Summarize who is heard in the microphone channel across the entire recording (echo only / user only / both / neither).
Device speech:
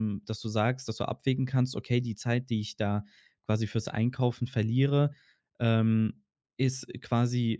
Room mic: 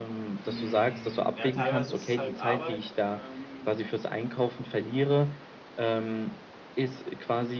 both